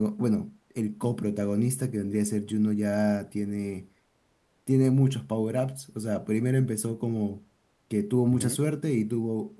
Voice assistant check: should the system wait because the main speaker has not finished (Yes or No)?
Yes